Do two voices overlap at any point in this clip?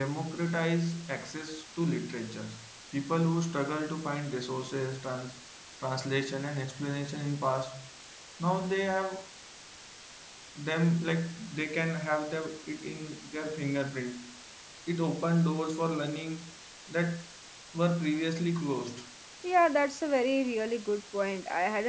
No

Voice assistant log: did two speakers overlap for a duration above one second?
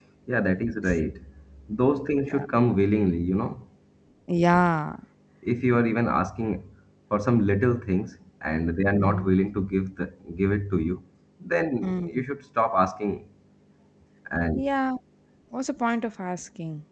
No

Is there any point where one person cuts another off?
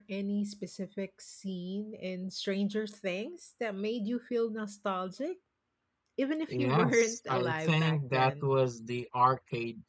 Yes, from 6.5 s

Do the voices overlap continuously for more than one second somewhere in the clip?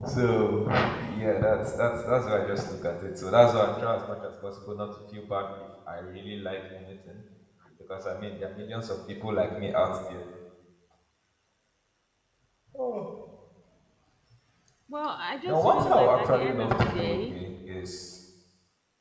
Yes, from 15.5 s

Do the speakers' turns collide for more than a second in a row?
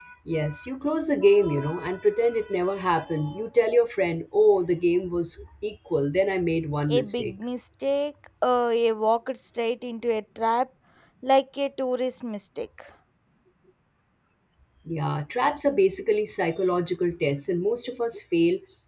No

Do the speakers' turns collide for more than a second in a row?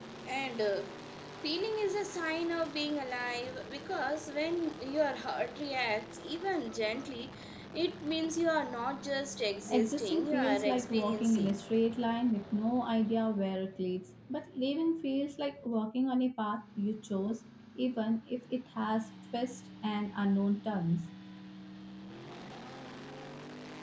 Yes, from 9.7 s

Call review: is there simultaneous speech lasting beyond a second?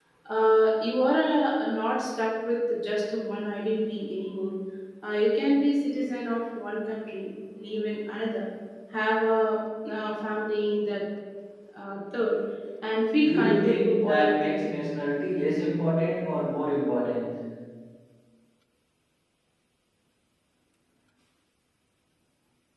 Yes, from 13.2 s

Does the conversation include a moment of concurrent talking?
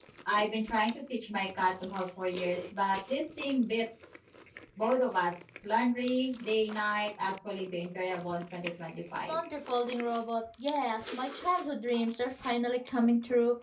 No

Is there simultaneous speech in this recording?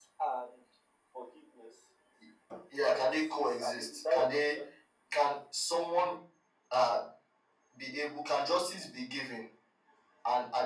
Yes, from 2.9 s

